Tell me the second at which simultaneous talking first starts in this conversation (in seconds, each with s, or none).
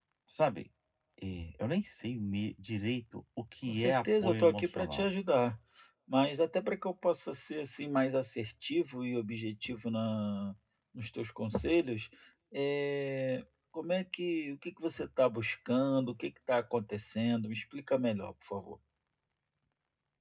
3.7 s